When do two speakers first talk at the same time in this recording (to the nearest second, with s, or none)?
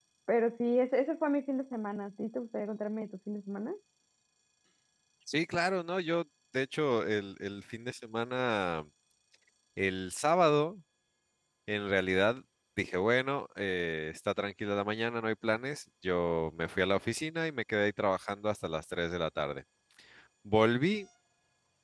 none